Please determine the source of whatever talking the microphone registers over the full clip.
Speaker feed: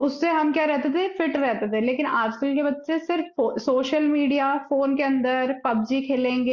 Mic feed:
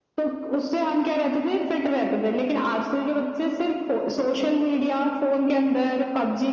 echo only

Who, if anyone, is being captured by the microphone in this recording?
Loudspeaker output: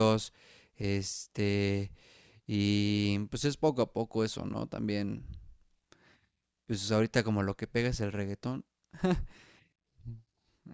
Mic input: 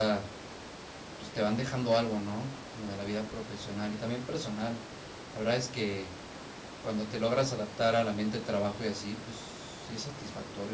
user only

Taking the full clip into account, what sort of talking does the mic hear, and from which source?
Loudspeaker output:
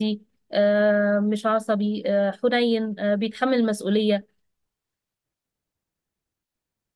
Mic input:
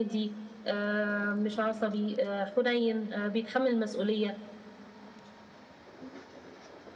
echo only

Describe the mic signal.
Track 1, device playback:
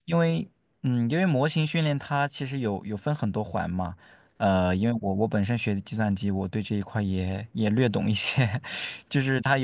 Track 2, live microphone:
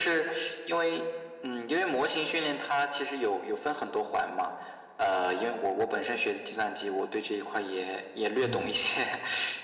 both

